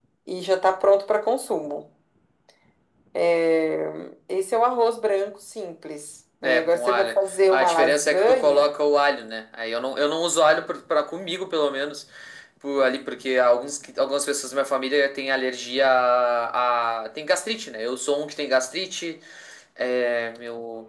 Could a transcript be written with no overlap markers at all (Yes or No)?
No